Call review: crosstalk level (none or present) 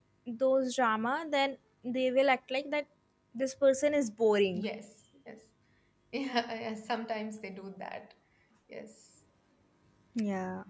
none